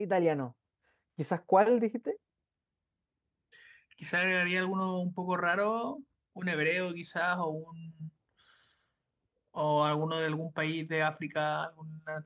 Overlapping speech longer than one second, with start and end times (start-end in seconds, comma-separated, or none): none